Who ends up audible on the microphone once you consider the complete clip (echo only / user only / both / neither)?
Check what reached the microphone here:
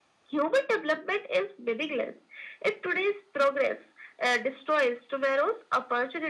echo only